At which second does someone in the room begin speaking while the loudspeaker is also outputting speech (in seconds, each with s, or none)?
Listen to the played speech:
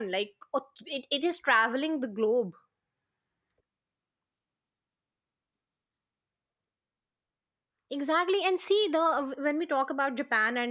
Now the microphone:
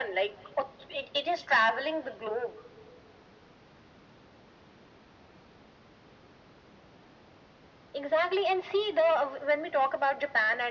none